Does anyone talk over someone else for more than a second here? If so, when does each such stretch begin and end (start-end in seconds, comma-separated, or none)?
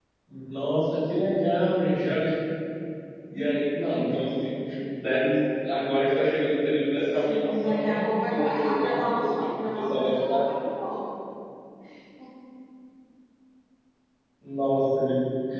7.2-10.4